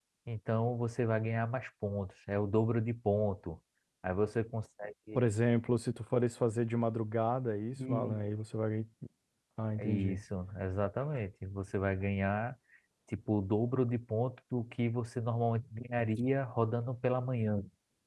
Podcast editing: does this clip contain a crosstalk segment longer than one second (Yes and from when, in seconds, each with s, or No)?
No